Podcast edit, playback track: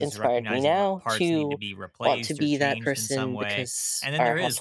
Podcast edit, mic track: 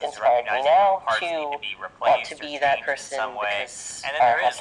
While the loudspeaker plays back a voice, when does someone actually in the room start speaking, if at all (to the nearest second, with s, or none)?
none